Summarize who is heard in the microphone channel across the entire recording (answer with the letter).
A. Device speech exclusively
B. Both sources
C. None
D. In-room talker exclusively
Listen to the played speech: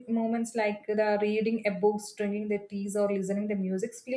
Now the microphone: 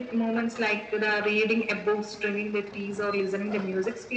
A